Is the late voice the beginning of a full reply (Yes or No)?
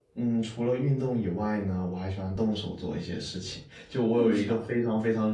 No